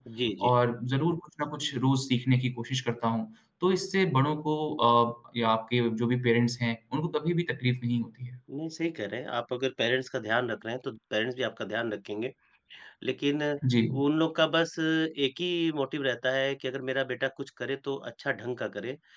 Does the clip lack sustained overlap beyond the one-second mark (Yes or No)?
Yes